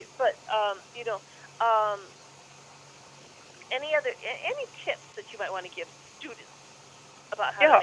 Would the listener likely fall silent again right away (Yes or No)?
No